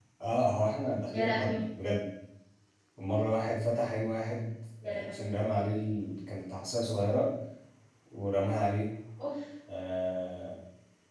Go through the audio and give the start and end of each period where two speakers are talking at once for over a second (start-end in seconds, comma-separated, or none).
none